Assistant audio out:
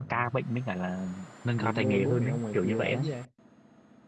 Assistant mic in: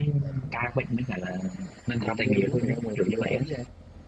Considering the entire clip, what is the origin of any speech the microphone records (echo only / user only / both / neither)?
echo only